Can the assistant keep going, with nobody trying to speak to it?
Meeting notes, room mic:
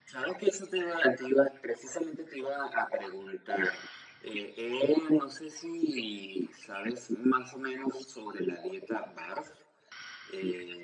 Yes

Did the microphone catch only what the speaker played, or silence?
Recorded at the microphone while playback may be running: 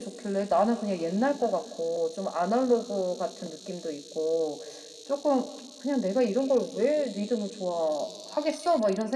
Yes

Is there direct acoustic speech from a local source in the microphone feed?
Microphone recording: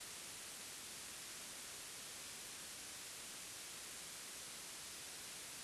No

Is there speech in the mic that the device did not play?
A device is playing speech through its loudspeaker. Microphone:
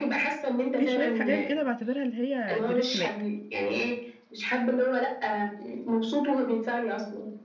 Yes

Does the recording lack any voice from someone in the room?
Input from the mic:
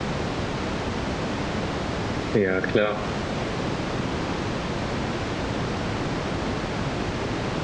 No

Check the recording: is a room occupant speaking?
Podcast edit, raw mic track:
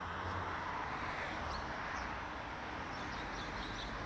No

